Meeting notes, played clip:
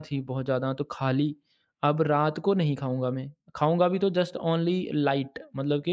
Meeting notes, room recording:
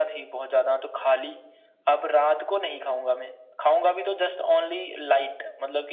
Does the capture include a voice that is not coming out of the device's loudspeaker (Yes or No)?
No